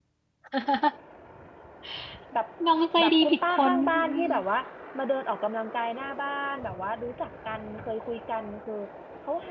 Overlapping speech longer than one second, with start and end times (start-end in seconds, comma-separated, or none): 3.0-4.3